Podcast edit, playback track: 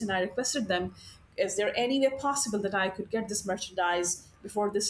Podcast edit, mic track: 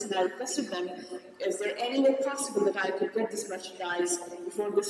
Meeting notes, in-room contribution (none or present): none